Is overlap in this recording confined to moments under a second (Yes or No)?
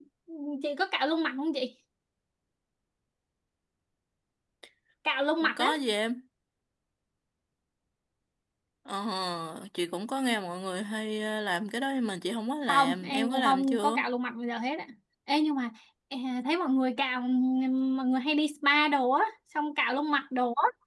No